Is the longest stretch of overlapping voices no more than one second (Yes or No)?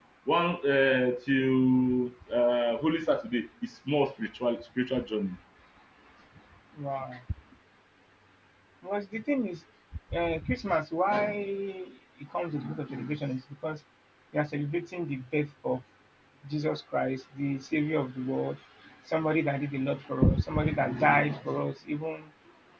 Yes